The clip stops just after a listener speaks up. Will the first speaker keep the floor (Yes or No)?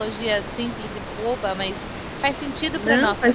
No